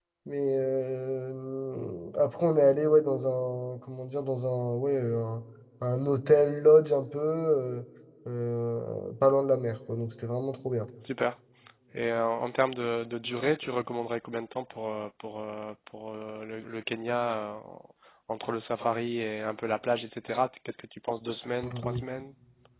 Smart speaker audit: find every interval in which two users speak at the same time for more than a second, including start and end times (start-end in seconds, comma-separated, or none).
none